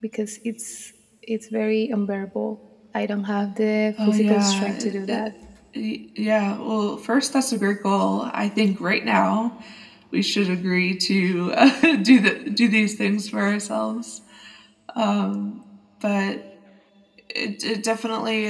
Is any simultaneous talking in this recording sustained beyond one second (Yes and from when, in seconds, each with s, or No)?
Yes, from 4.0 s